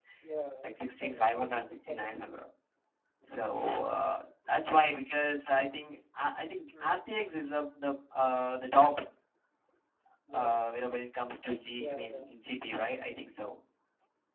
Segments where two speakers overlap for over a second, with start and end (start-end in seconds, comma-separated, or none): 0.6-2.3